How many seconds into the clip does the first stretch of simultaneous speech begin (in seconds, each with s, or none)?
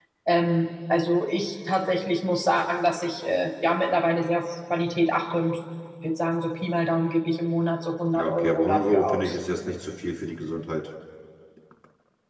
8.1 s